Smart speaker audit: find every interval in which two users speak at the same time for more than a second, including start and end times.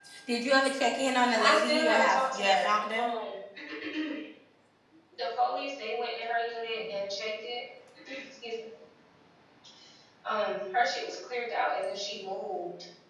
1.4-3.1

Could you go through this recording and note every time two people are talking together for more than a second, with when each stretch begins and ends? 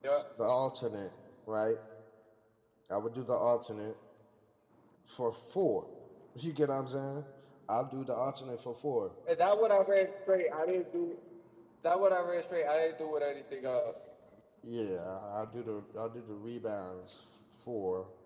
none

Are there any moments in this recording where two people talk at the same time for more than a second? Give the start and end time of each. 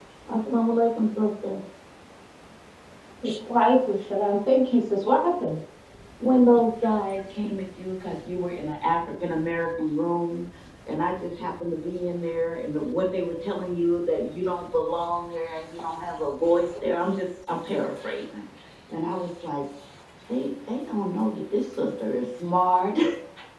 none

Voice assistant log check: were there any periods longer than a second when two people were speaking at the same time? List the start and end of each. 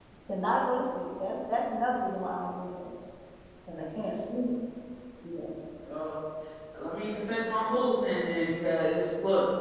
none

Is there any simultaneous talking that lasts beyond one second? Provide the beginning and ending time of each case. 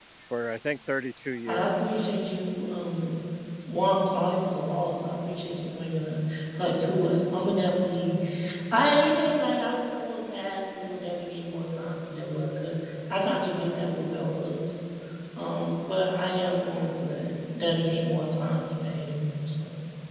none

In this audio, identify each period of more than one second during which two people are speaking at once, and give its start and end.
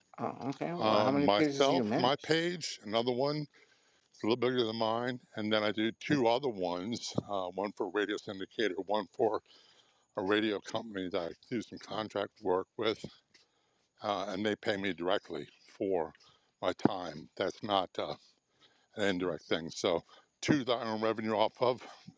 0.8-2.1

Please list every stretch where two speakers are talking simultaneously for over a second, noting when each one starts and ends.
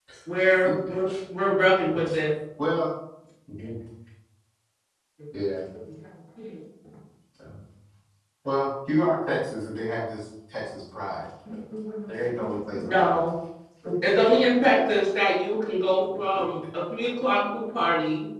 none

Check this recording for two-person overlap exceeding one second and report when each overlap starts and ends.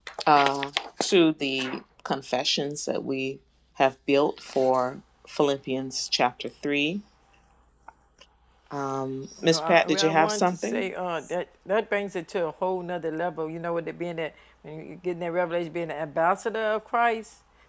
9.4-10.9

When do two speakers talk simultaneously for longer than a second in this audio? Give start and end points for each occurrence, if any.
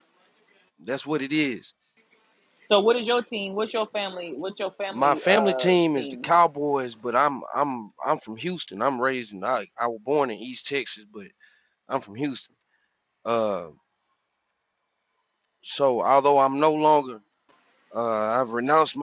4.9-6.3

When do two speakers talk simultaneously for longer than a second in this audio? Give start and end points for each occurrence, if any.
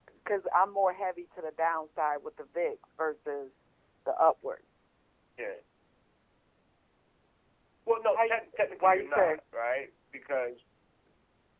8.1-9.4

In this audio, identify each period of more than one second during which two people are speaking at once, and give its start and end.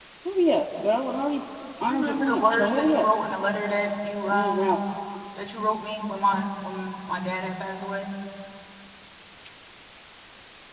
1.8-3.1

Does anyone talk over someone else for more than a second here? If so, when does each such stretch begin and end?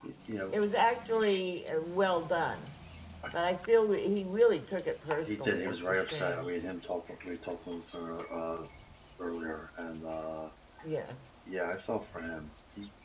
5.2-6.5

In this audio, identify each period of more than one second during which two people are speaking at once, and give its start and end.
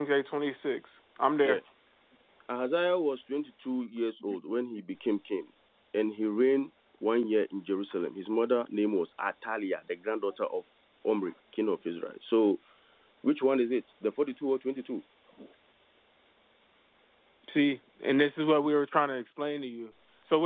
none

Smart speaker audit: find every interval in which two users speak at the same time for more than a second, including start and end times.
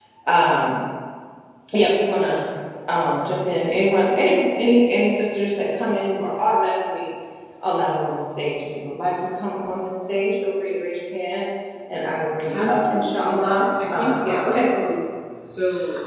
12.5-14.6

